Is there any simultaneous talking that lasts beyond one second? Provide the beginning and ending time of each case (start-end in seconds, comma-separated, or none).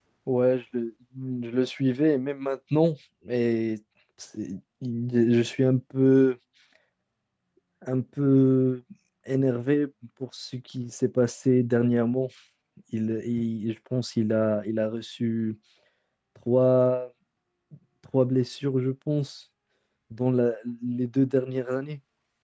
none